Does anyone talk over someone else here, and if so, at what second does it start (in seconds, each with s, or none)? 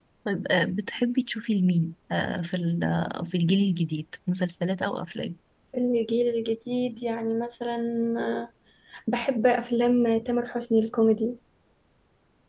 none